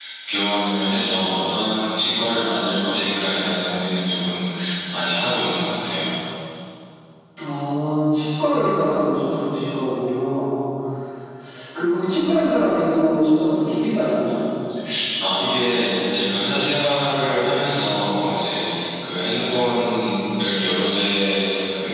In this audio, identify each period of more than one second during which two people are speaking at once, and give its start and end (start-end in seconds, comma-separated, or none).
none